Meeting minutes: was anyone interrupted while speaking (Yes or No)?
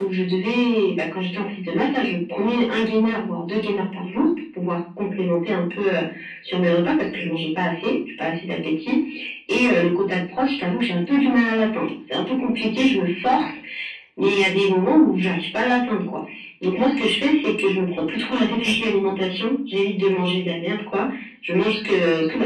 No